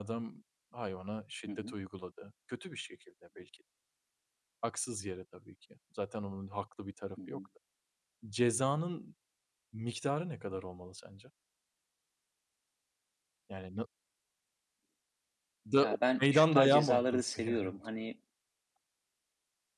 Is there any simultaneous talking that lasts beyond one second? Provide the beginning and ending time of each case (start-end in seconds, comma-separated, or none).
15.8-17.7